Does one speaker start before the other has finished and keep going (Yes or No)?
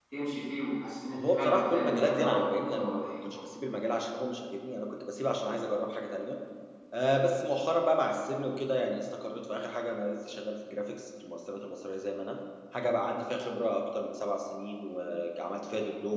Yes